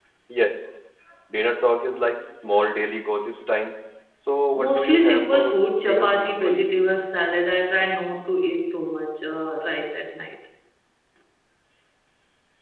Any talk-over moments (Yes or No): Yes